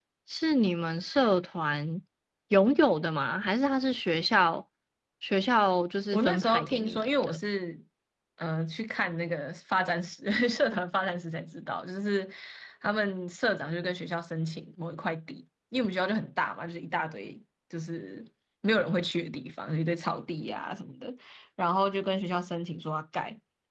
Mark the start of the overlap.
6 s

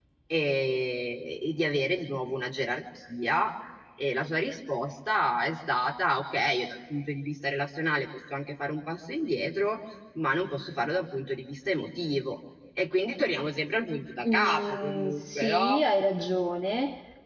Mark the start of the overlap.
14 s

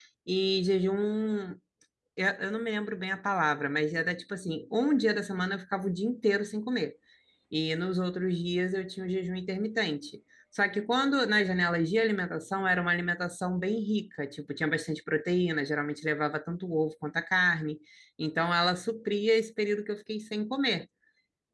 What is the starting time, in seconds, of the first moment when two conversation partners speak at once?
none

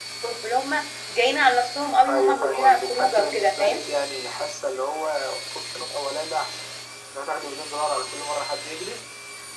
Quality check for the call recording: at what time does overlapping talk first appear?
2 s

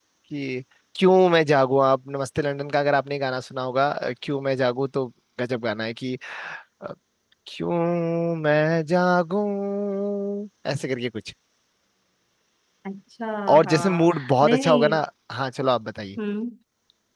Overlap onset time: 14 s

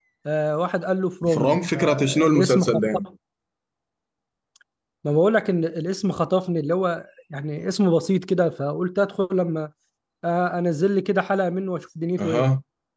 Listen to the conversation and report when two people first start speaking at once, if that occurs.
1 s

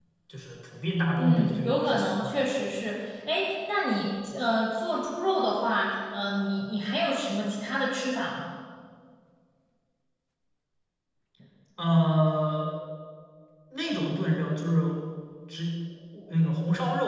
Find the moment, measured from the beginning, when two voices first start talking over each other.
1 s

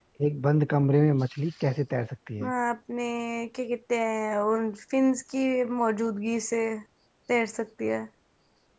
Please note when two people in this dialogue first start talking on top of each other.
none

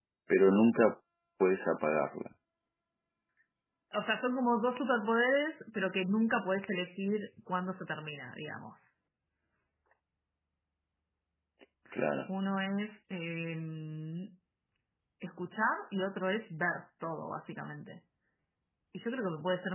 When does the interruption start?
none

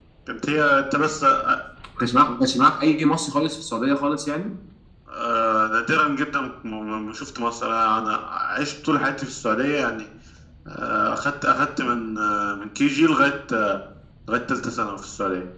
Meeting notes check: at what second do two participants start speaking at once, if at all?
none

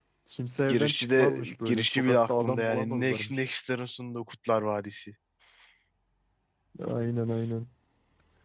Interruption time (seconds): 1 s

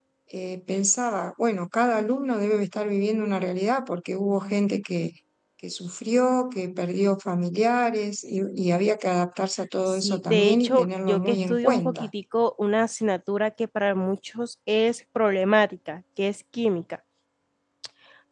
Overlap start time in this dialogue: 10 s

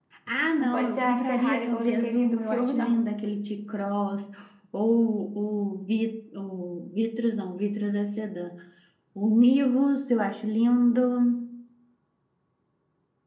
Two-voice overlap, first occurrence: 1 s

